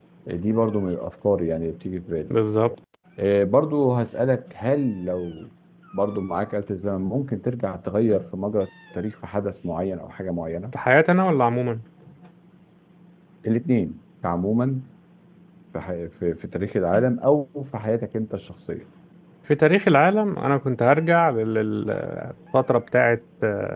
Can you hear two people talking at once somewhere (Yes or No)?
No